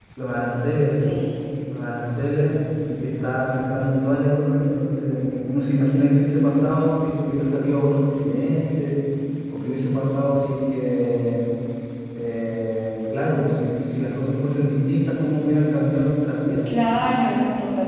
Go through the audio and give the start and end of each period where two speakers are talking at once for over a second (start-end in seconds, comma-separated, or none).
none